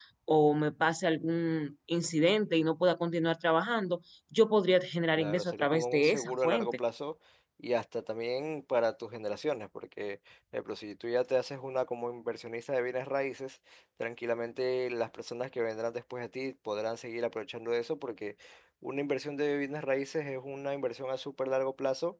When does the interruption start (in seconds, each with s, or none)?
5.2 s